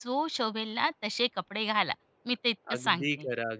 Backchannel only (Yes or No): No